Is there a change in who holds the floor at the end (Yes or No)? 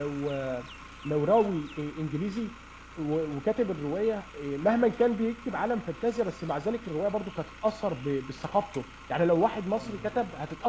No